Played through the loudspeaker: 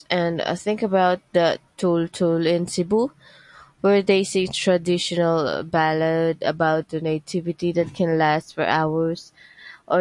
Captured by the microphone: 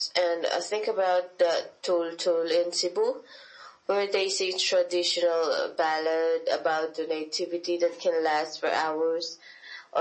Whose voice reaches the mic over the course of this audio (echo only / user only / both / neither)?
echo only